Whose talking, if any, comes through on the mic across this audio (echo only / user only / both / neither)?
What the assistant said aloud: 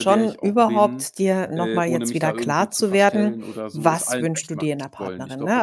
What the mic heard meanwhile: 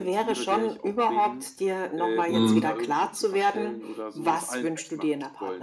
both